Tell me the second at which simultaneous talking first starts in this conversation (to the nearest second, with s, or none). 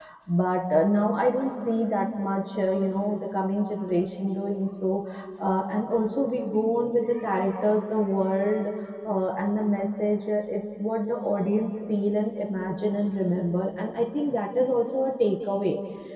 none